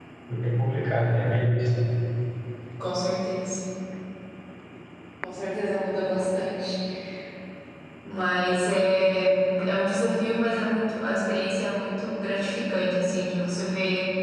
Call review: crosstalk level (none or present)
none